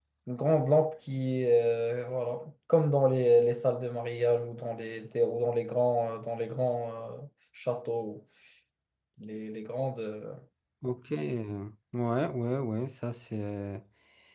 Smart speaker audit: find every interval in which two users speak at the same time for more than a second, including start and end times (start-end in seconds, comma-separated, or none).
none